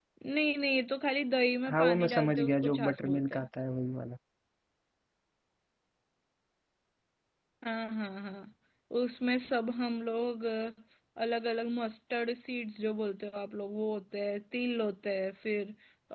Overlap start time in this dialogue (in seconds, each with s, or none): 1.7 s